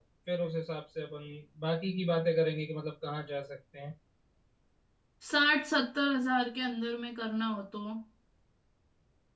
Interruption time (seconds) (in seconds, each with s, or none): none